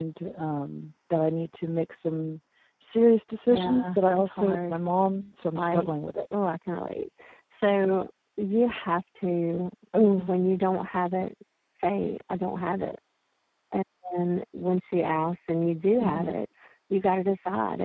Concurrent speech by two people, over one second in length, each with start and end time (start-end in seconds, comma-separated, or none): 3.5-4.8